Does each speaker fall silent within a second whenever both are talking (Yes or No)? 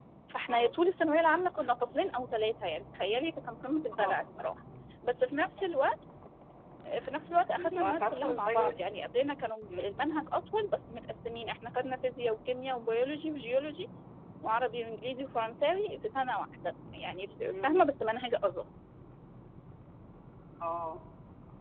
No